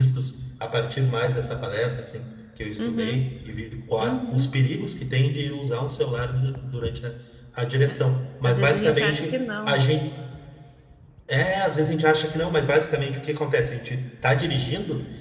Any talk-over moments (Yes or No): Yes